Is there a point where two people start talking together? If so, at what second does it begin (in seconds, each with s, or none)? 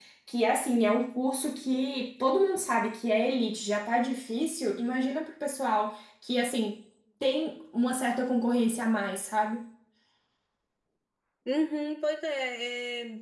none